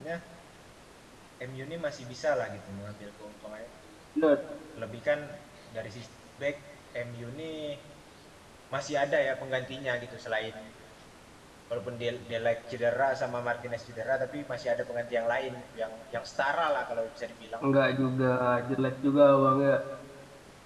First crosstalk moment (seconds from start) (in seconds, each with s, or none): none